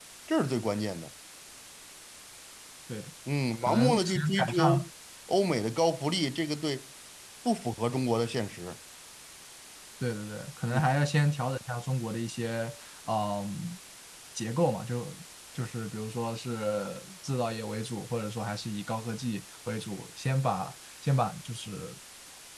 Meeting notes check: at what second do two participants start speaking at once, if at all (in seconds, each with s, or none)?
3.7 s